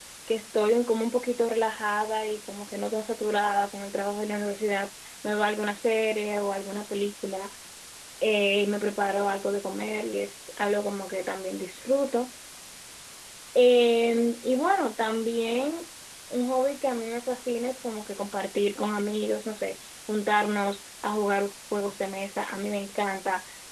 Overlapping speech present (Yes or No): No